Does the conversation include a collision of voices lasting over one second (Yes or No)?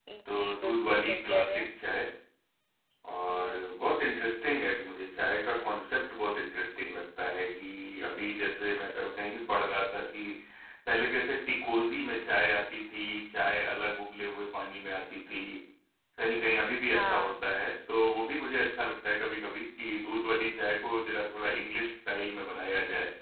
Yes